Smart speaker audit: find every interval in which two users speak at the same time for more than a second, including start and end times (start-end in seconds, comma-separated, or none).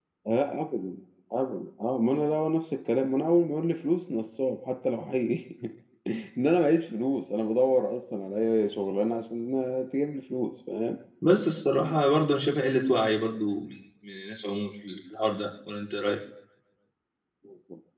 none